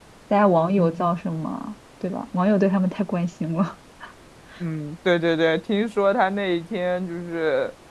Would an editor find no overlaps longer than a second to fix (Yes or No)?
Yes